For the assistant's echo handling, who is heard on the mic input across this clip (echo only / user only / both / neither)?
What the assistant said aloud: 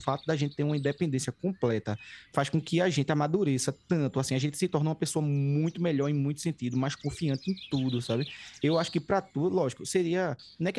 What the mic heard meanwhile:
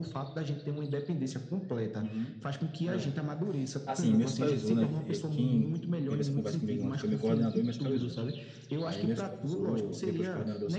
both